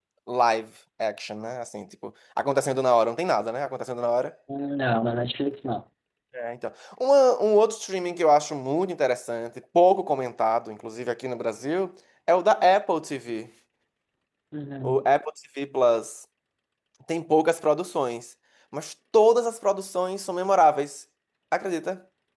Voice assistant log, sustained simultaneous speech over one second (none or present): none